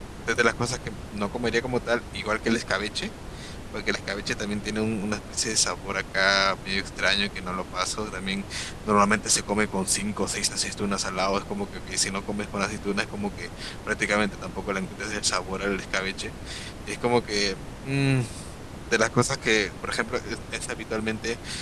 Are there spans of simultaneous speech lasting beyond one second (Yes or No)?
No